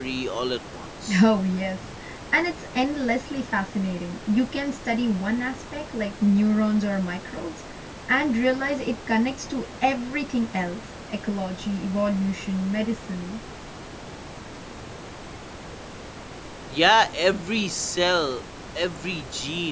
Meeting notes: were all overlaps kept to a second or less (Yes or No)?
Yes